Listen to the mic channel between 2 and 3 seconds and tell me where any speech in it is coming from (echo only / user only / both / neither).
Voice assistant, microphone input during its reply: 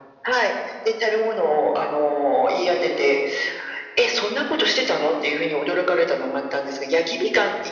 echo only